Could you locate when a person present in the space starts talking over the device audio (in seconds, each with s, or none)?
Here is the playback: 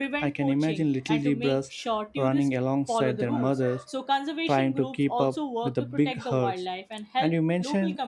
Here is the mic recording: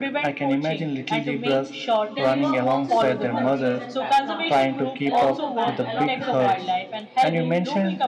2.1 s